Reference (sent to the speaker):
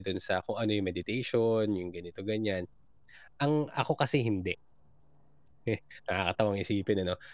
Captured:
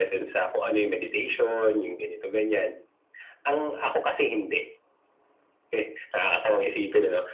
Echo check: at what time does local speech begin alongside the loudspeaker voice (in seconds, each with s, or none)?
none